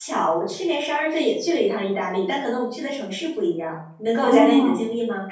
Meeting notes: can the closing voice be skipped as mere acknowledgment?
No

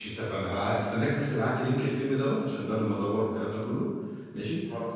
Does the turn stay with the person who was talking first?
Yes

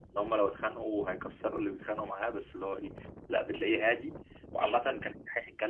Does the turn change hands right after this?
No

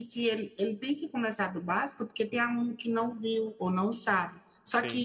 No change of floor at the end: Yes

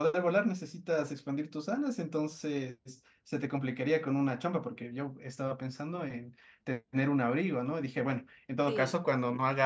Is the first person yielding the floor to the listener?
No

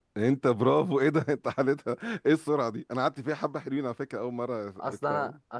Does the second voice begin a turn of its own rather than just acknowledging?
Yes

